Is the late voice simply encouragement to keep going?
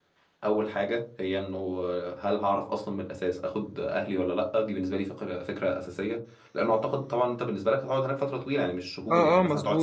No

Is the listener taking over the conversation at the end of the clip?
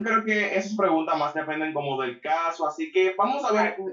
No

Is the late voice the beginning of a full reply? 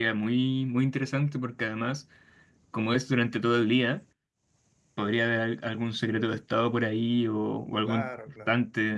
Yes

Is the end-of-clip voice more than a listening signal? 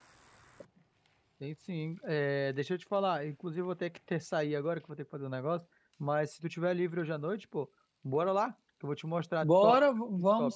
Yes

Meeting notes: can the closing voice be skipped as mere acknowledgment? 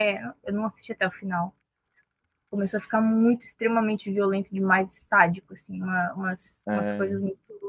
Yes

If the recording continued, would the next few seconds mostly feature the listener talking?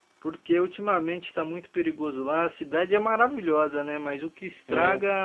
No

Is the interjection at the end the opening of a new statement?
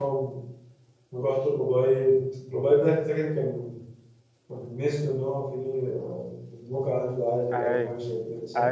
Yes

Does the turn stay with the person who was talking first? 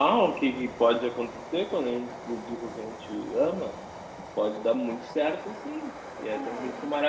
Yes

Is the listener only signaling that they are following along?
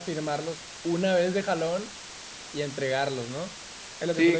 No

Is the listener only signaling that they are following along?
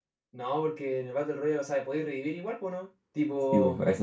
No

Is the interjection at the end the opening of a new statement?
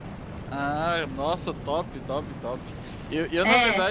No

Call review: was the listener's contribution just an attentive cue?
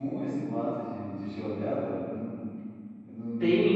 No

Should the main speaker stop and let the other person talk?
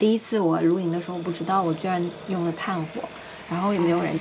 No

